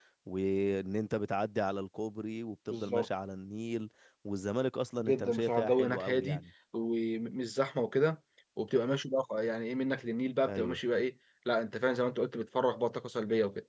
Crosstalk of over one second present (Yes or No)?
Yes